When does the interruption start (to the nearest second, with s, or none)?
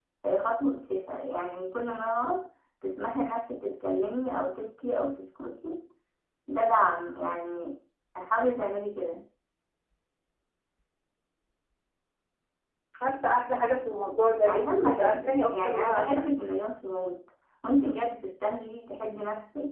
14 s